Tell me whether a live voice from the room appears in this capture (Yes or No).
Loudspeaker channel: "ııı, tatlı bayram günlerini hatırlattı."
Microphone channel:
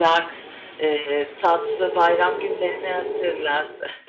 No